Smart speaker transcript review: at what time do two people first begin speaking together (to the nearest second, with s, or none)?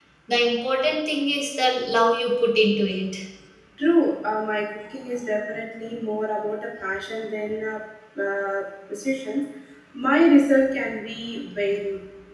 none